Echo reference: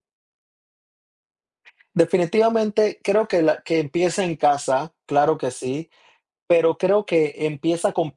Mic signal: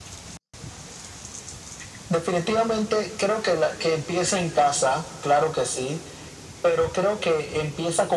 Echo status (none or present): present